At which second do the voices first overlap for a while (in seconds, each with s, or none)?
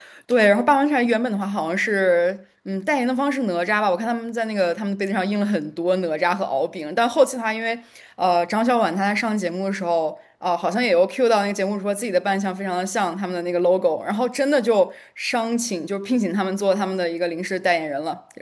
none